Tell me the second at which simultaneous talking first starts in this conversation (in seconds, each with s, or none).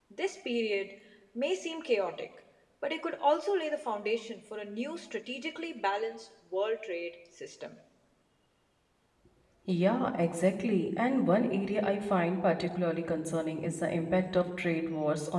none